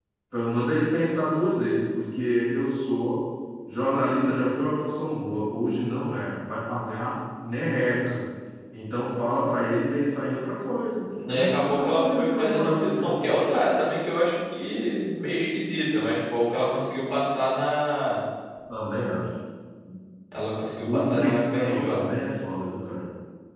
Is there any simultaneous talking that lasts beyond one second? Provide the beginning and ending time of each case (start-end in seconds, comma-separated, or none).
11.3-13.2, 20.8-22.0